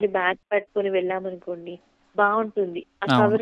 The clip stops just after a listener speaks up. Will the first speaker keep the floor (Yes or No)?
Yes